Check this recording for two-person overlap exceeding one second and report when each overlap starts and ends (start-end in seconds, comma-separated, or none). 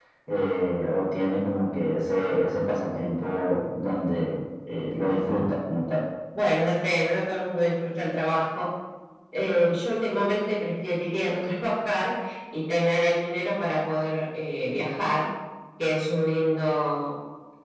none